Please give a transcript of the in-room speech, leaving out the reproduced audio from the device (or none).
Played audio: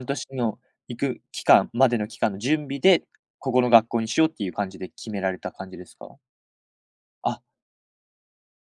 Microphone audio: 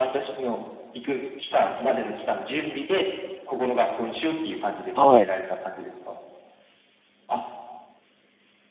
はい。